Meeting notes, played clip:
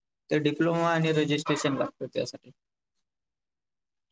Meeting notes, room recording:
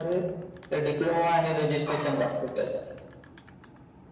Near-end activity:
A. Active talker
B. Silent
B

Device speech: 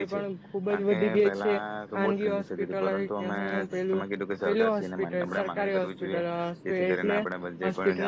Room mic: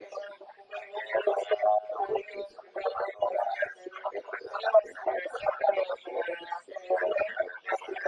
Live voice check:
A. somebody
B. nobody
B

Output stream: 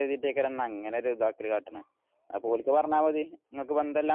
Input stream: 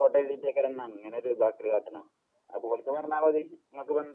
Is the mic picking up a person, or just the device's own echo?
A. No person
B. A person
A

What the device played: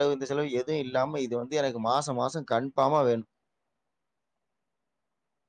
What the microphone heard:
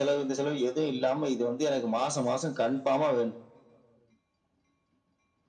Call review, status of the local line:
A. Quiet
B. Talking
A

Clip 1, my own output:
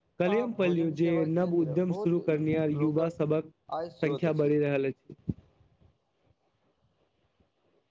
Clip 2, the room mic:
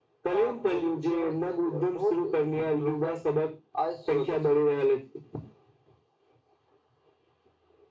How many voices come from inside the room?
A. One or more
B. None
B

